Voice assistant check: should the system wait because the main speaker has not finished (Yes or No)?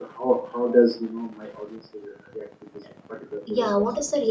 No